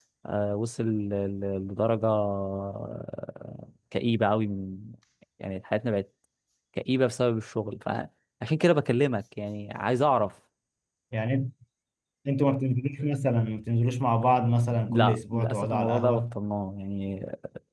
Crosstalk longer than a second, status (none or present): present